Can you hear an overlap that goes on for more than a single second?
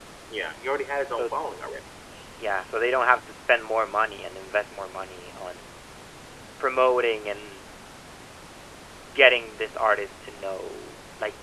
No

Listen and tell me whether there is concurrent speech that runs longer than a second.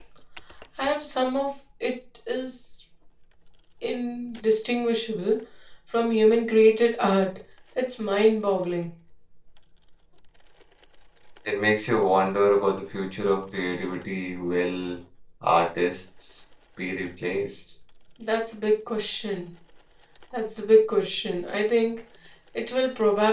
No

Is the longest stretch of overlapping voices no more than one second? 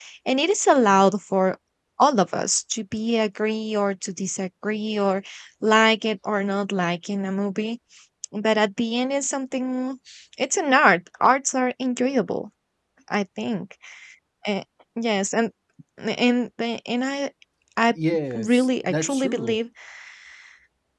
No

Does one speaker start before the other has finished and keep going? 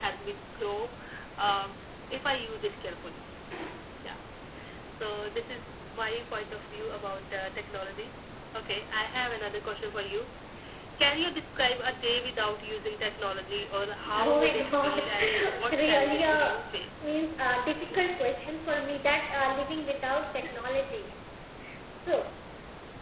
Yes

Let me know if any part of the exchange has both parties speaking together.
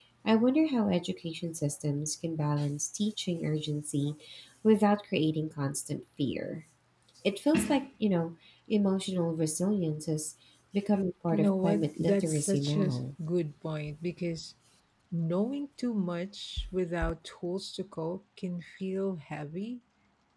Yes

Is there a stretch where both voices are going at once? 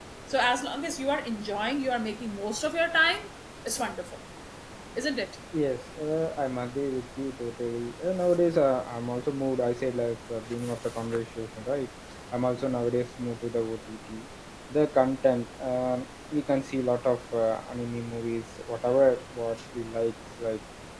No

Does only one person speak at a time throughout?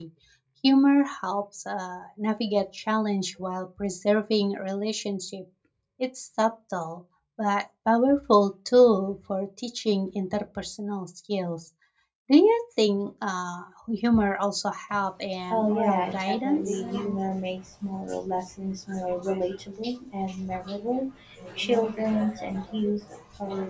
No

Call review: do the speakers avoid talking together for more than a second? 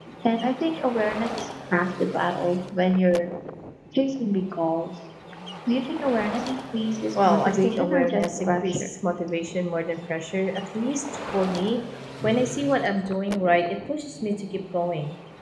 No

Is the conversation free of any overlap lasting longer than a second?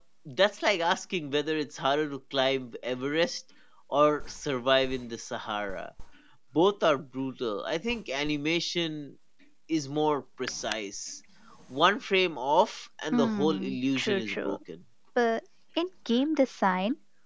No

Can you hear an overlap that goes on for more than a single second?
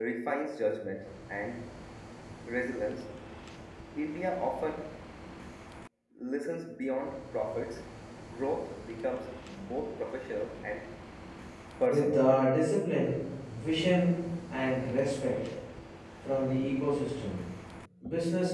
No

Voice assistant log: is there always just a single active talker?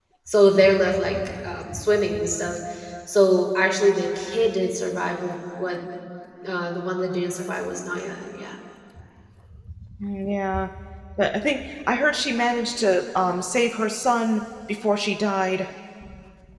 Yes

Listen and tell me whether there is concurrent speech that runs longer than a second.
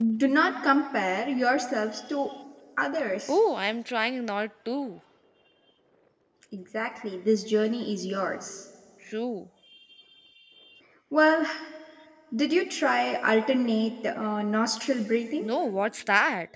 No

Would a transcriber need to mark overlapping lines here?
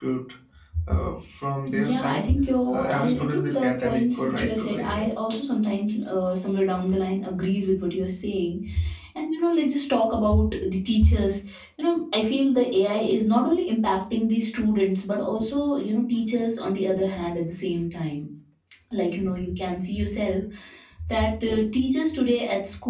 Yes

